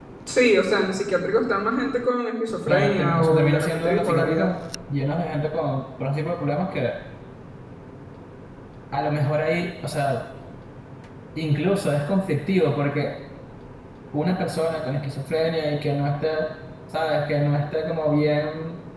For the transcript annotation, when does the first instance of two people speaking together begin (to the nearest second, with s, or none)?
3 s